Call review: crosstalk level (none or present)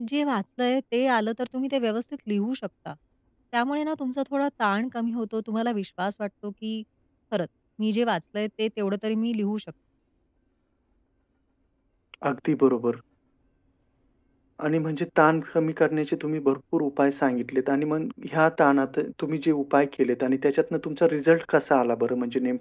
none